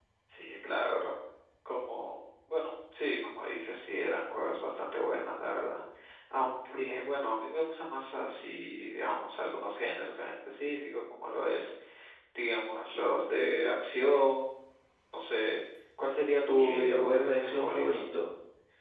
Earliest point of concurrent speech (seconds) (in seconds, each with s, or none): 16.5 s